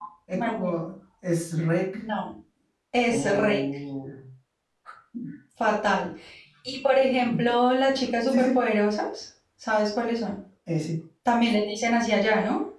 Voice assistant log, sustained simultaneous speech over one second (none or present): none